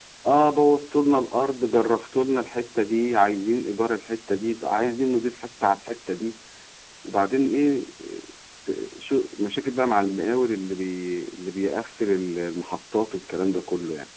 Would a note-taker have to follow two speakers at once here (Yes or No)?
No